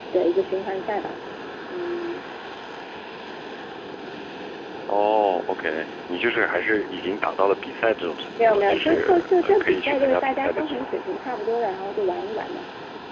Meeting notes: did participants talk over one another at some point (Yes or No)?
Yes